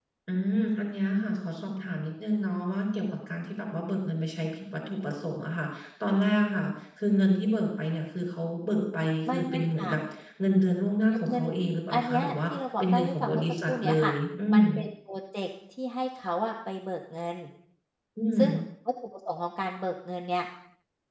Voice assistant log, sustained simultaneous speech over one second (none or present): present